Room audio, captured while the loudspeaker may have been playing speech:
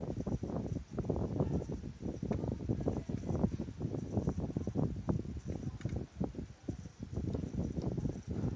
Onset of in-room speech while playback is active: none

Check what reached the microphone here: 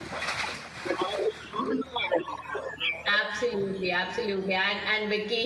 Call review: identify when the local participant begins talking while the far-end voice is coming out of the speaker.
3 s

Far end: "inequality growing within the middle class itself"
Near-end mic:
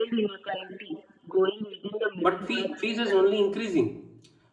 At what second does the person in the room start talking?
2 s

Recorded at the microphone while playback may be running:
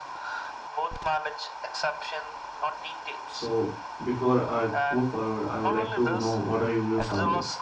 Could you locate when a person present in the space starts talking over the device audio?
3 s

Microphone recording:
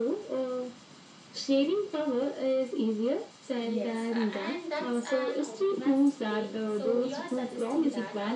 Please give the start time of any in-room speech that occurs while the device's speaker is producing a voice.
4 s

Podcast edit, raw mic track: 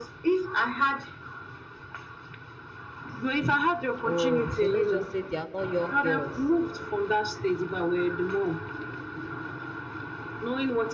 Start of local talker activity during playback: 4 s

